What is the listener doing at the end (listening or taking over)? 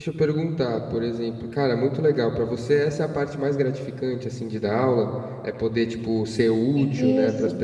listening